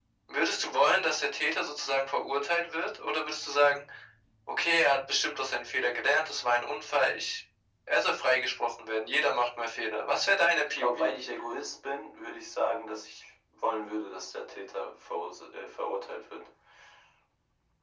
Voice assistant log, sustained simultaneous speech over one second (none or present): none